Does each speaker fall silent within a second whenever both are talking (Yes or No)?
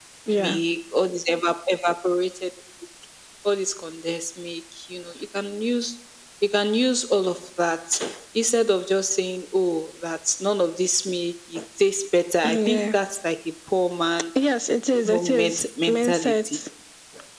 No